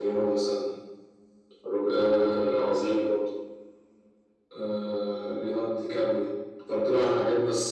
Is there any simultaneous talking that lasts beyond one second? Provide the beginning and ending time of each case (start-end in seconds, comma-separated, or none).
1.9-3.0